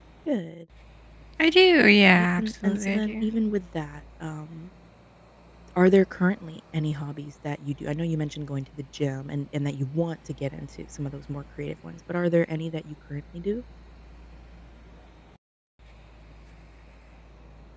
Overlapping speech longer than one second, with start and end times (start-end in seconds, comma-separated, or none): 2.0-3.3